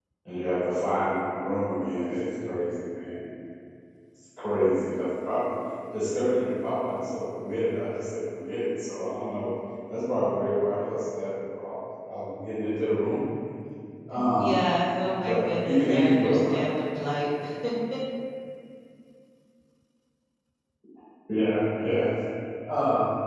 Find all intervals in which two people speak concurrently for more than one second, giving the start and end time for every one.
15.2-16.7

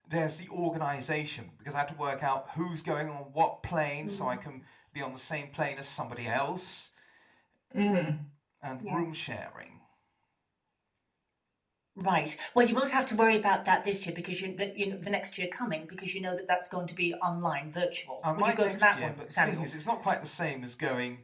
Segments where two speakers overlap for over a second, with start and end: 18.4-19.6

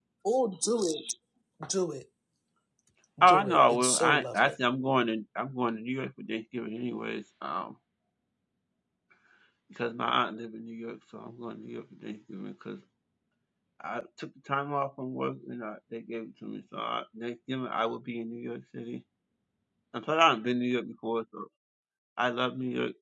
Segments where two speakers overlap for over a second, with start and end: 3.2-4.6

